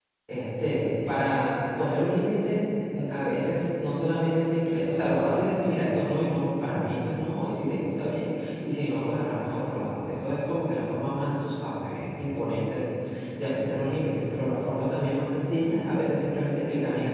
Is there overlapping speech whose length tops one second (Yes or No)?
No